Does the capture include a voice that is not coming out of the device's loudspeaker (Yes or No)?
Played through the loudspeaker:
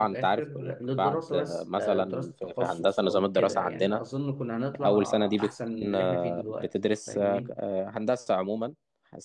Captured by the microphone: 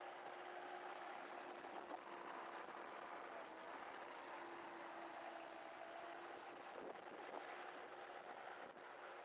No